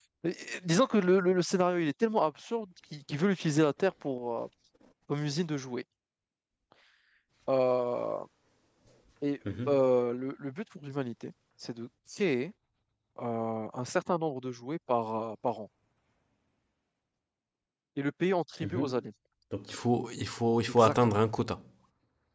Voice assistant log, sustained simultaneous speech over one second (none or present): none